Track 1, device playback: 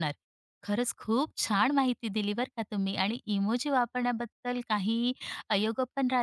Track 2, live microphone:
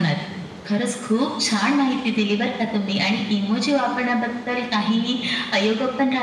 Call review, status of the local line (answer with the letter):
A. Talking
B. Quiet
B